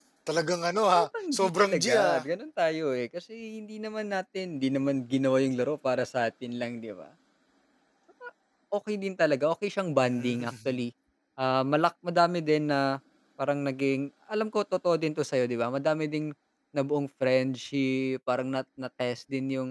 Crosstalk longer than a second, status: present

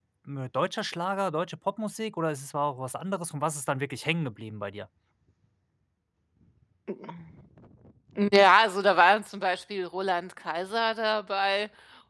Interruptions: none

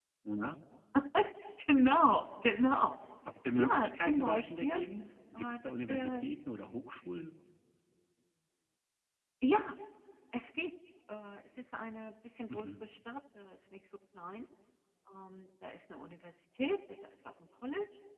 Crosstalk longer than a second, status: present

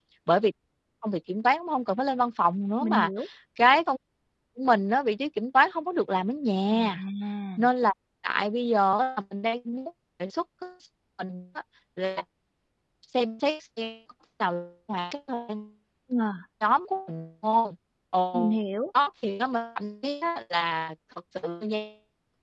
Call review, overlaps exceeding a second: none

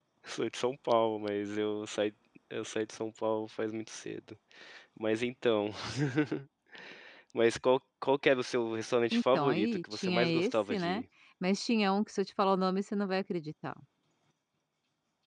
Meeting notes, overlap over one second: present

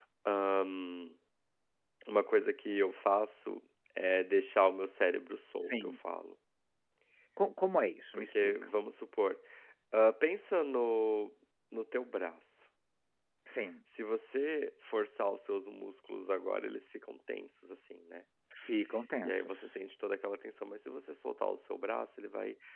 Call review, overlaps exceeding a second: none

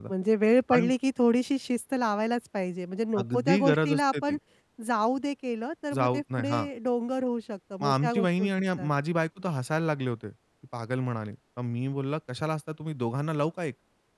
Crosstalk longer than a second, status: present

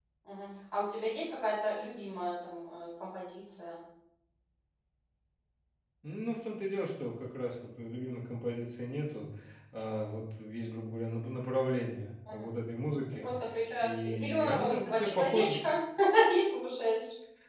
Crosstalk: present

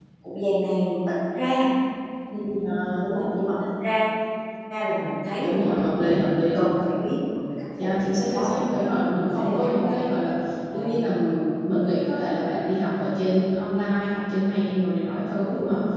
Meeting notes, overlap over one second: present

